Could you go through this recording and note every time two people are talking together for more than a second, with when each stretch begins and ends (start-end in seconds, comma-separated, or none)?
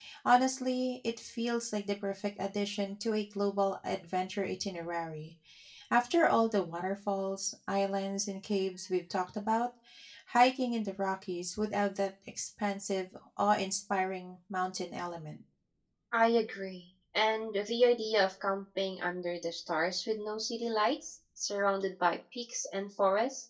none